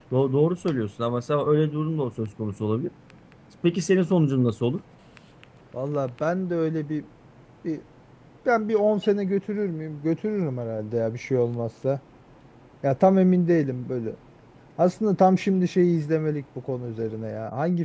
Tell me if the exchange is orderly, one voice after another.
Yes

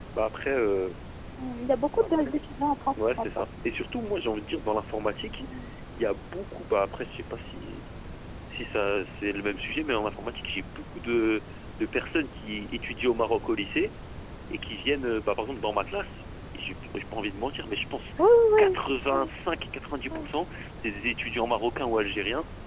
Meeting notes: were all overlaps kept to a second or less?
Yes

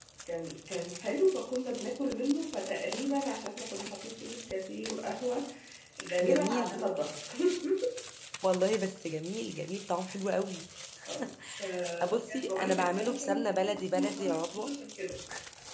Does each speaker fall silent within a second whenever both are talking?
No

